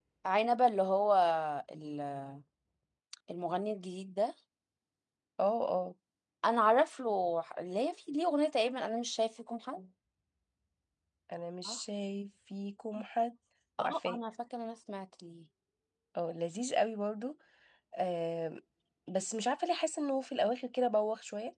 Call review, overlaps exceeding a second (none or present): none